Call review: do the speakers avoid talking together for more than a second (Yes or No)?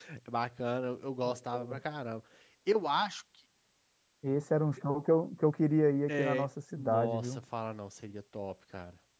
No